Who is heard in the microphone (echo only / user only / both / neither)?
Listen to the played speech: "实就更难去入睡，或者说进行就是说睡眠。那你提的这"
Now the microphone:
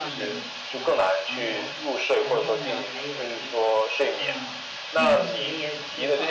both